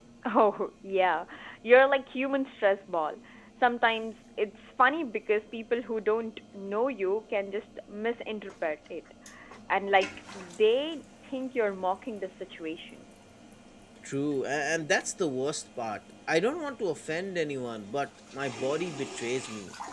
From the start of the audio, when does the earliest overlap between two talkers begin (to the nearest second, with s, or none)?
none